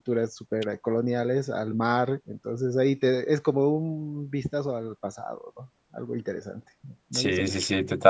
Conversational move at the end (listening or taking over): taking over